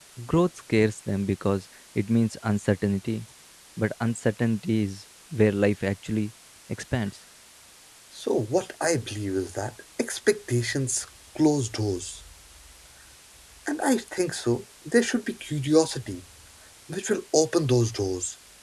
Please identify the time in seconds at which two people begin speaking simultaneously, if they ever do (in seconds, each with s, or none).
none